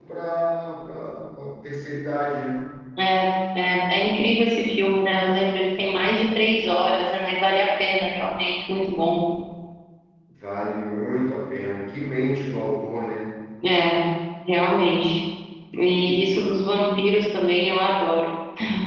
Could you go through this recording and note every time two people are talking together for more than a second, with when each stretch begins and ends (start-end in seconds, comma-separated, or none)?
none